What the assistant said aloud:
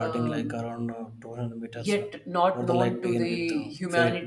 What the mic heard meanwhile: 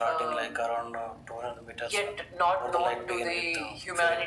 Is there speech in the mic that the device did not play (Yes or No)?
No